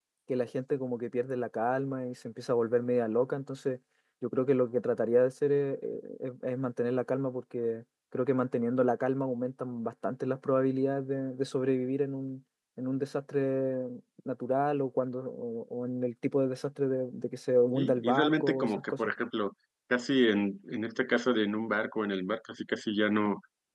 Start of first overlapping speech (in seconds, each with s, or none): 17.7 s